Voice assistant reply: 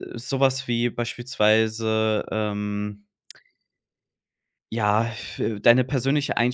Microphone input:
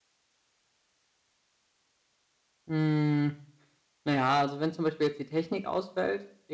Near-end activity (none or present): present